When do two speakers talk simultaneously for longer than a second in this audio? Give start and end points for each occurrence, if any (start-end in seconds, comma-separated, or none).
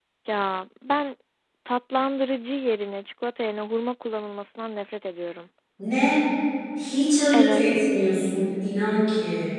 none